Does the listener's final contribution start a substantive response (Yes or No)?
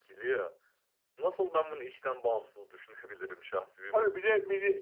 Yes